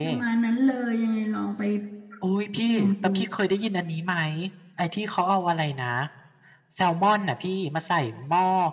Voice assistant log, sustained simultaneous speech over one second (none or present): none